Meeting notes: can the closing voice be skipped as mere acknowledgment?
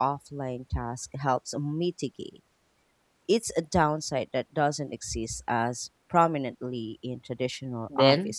No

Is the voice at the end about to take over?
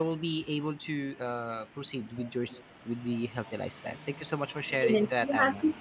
Yes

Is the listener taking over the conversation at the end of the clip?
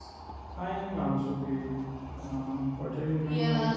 Yes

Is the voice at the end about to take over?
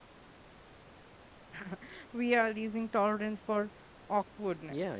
Yes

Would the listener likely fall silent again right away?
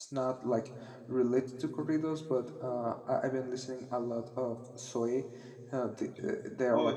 No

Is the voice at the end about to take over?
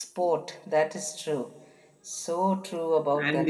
Yes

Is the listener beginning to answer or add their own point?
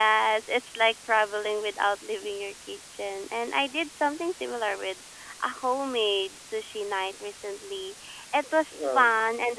No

